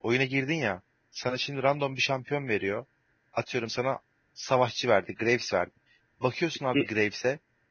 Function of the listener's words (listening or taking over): listening